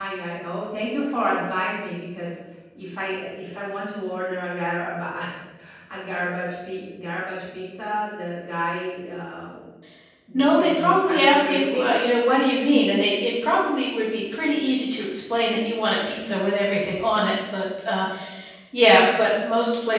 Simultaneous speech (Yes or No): Yes